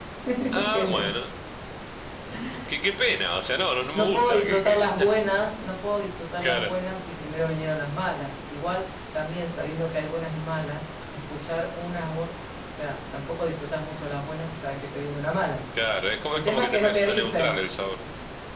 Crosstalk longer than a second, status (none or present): present